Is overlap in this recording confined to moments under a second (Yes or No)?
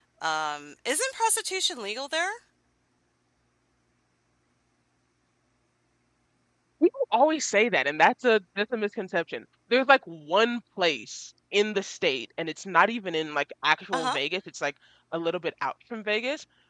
Yes